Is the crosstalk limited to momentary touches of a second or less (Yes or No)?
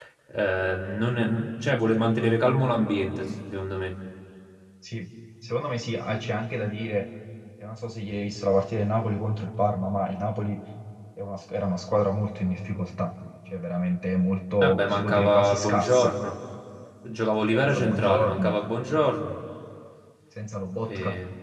No